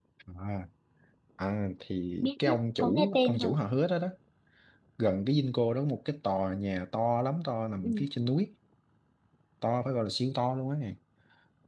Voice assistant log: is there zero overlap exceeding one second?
No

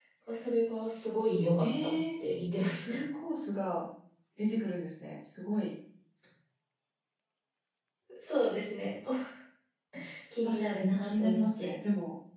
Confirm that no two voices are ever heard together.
No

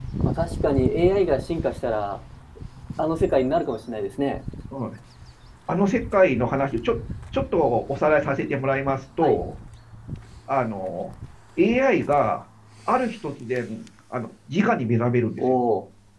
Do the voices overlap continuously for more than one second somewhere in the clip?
No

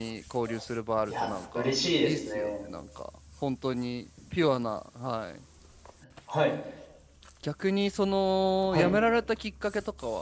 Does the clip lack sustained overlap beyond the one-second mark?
No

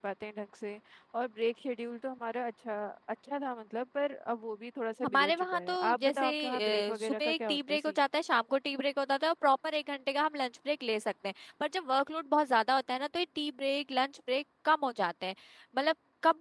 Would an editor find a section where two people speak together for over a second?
Yes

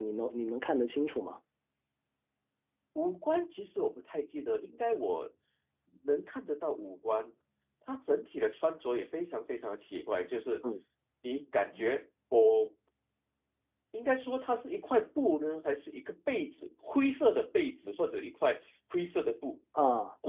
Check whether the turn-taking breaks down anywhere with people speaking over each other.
No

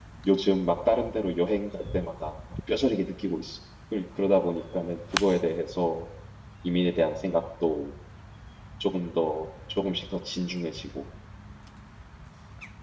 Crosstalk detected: No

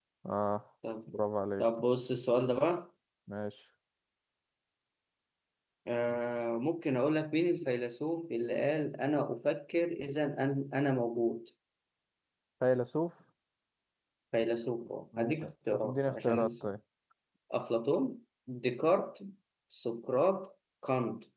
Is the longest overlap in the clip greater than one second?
Yes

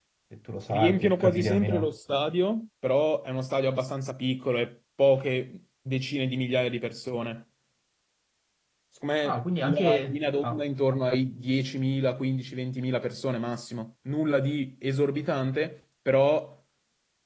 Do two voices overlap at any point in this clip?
Yes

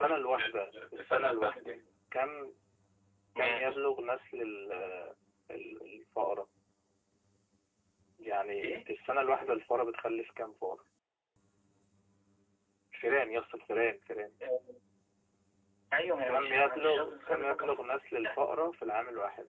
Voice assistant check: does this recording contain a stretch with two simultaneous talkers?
Yes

